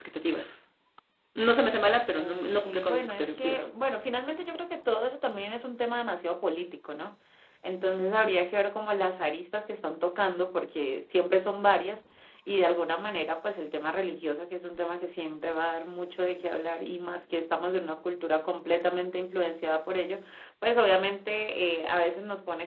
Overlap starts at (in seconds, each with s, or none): 2.2 s